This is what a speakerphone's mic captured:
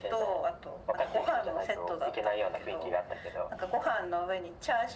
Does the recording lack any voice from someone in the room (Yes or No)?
Yes